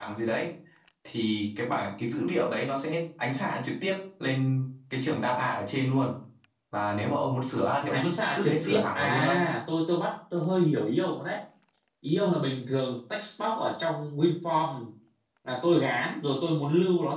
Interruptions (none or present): present